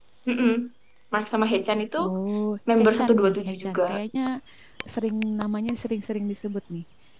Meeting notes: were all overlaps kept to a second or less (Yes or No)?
No